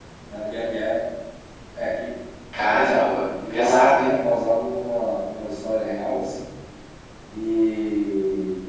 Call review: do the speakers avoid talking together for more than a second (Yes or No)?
No